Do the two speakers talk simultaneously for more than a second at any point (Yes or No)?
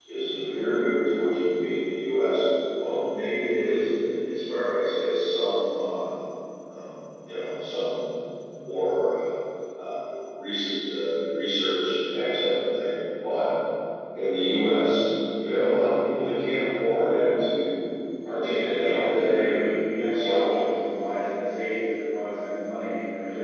Yes